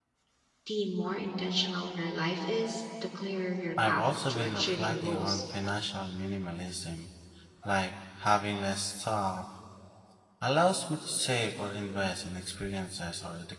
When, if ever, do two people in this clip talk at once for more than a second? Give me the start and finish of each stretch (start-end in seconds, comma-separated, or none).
3.9-5.4